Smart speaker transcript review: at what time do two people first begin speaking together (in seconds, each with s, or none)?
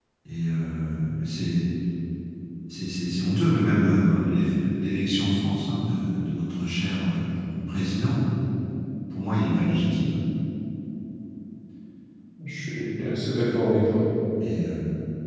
none